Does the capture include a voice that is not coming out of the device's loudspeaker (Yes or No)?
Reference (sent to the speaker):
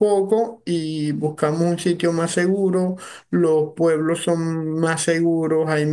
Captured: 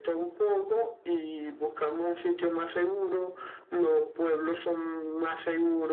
No